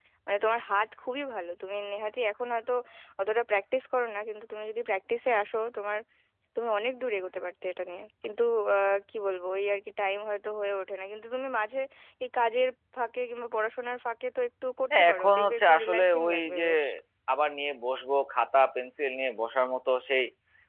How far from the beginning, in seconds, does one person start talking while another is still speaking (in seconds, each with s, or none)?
14.9 s